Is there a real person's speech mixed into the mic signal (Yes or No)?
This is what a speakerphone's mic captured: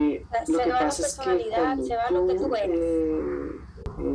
No